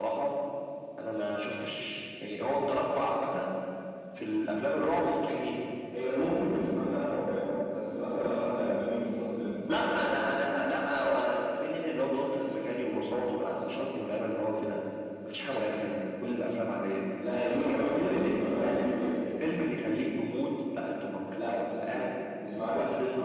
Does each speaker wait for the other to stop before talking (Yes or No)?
No